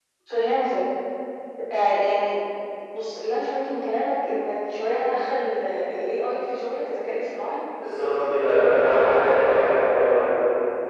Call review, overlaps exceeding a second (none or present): none